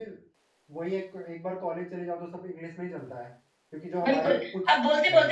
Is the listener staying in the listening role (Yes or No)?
No